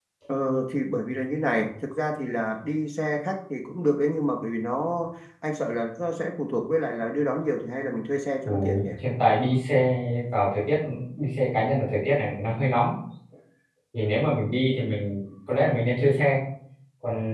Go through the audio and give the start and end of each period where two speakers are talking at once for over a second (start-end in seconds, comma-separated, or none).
none